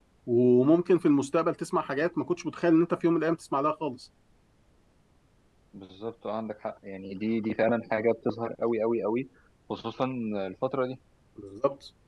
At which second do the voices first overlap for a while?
none

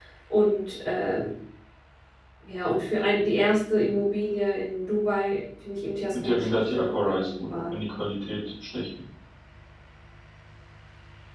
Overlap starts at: 6.1 s

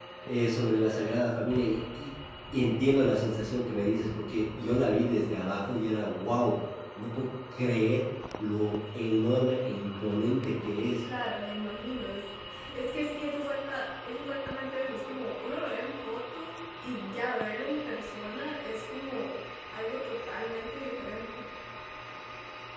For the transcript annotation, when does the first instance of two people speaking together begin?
none

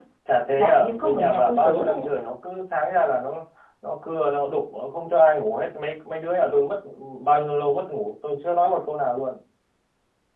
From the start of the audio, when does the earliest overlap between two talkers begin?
0.6 s

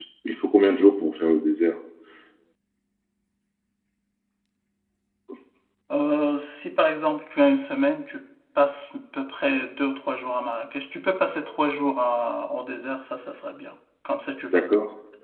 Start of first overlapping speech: none

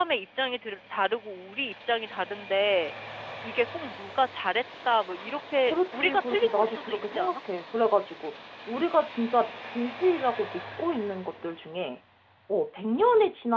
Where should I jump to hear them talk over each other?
5.7 s

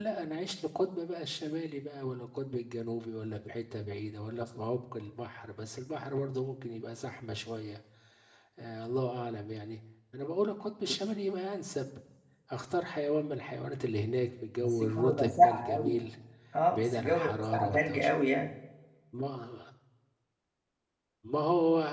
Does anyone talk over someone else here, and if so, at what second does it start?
14.6 s

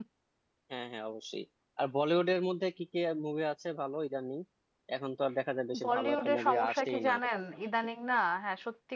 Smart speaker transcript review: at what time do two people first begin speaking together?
5.8 s

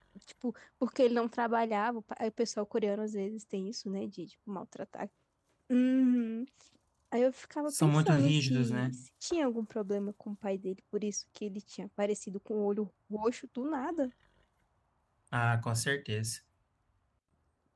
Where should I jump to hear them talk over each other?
7.7 s

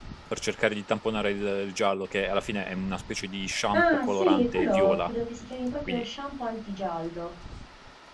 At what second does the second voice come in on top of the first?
3.7 s

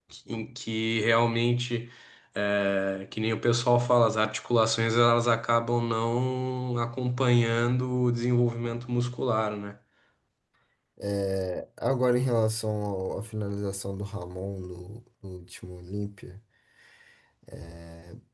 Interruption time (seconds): none

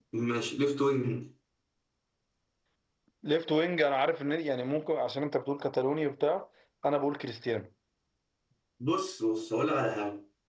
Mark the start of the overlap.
none

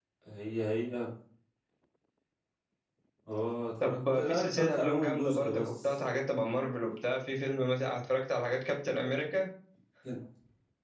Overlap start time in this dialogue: 3.8 s

